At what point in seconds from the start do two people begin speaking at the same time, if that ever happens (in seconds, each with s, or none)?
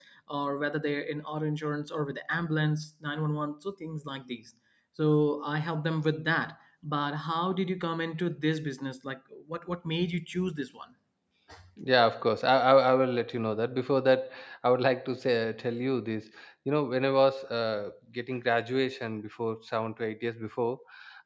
none